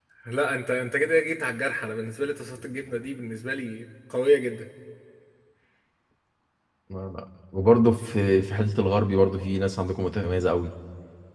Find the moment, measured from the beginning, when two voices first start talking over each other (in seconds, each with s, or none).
none